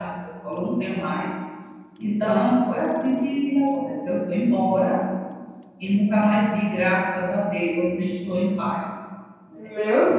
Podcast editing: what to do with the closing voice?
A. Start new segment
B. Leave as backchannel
A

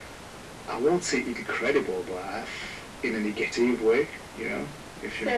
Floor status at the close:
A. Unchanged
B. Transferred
B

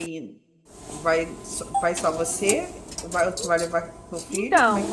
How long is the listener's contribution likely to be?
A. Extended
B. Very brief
A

